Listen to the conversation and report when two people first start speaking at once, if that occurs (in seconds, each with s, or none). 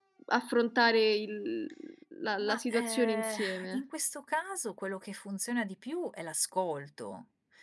2.4 s